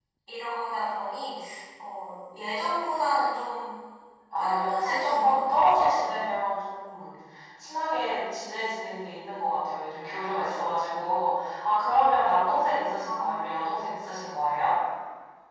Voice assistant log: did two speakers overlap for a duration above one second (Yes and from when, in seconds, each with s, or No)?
Yes, from 4.4 s